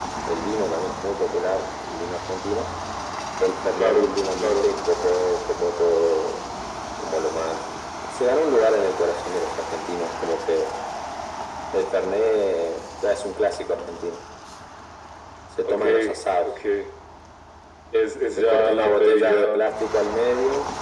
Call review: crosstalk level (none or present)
present